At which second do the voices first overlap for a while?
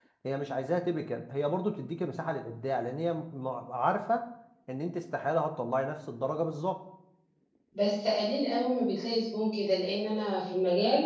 none

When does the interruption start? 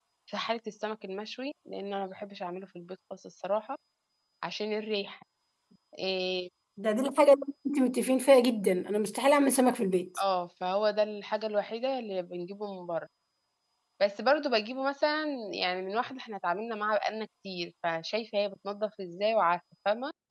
none

